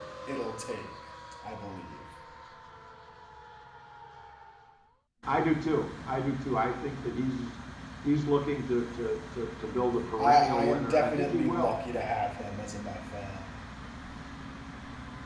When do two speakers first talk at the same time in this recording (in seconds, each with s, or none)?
10.0 s